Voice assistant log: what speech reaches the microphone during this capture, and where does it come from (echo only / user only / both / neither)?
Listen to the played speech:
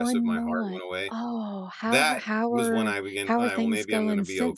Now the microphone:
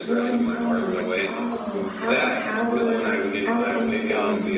both